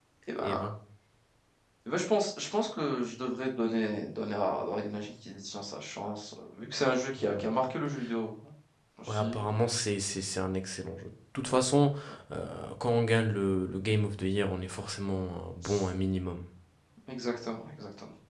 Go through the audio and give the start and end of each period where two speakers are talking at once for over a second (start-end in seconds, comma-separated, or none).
none